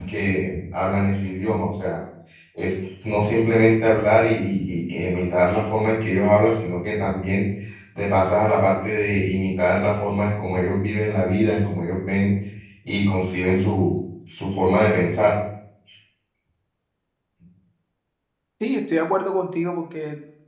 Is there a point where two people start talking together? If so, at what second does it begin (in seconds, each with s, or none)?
none